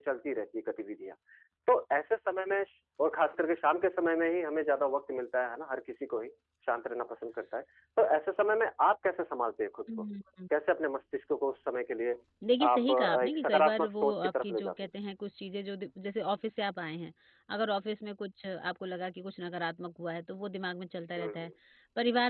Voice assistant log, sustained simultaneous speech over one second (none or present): present